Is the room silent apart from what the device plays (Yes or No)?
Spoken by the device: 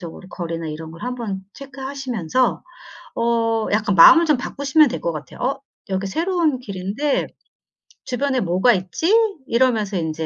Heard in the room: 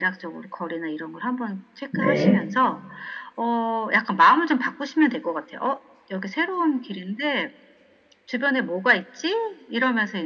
No